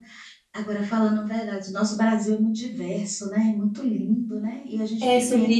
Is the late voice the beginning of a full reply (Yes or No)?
Yes